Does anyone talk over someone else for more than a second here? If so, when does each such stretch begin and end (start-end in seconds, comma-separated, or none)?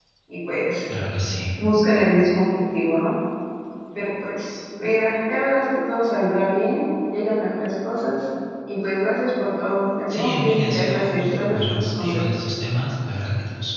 10.1-12.2